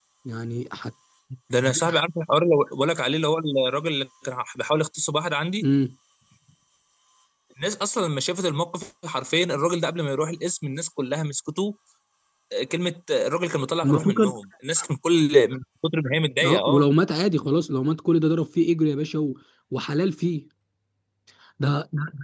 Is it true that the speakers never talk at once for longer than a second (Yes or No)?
Yes